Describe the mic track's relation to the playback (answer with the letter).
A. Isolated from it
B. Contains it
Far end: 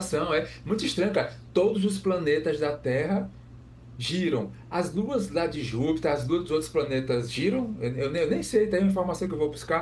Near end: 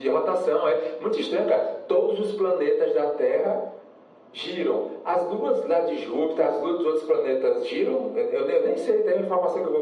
B